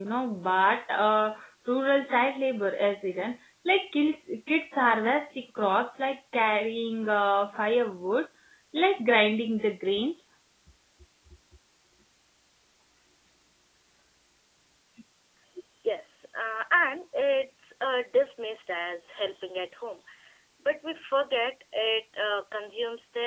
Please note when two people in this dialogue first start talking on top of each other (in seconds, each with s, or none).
none